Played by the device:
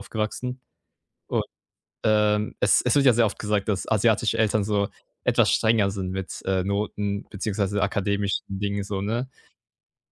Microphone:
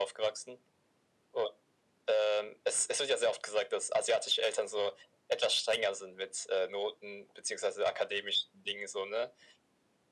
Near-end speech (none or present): none